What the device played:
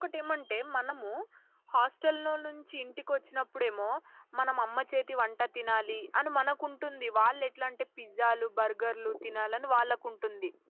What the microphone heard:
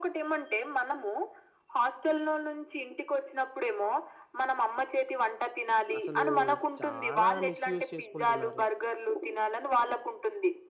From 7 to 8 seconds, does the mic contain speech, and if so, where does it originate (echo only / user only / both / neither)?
both